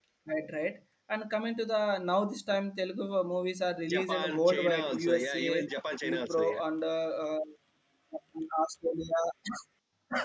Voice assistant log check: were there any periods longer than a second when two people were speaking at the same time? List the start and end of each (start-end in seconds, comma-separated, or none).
3.9-5.5